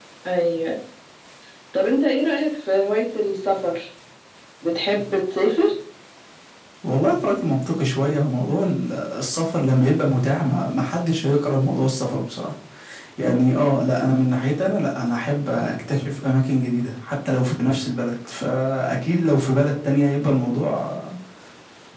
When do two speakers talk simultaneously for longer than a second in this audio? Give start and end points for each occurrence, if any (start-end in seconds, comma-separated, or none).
none